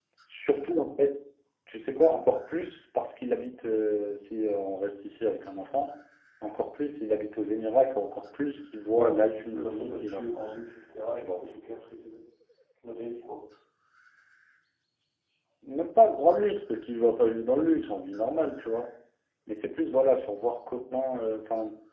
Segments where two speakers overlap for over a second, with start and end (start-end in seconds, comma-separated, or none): 8.9-10.5